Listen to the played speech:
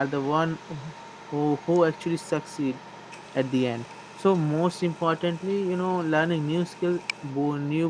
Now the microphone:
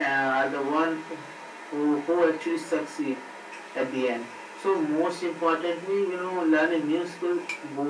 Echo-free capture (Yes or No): No